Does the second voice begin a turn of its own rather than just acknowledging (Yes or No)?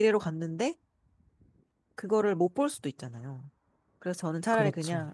No